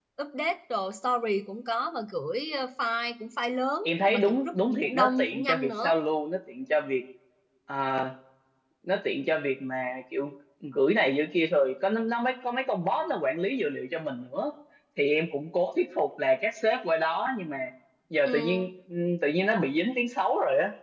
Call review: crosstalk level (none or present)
present